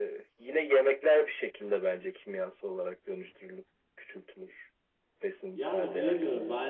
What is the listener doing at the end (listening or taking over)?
taking over